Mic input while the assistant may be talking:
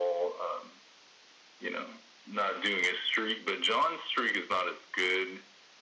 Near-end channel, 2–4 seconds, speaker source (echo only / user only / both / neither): echo only